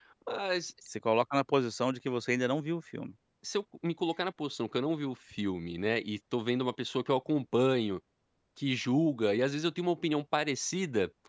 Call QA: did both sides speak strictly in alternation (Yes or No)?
Yes